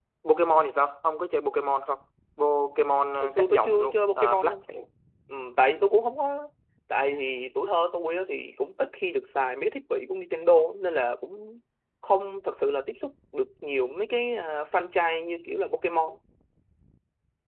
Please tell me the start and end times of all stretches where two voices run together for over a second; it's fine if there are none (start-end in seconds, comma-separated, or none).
3.2-4.6